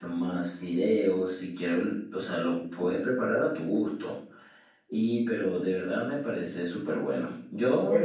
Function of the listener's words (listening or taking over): listening